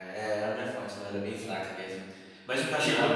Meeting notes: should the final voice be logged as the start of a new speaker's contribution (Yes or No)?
No